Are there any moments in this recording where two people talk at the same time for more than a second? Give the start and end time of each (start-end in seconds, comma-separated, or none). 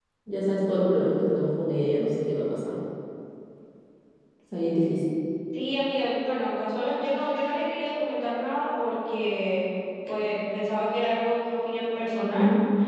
none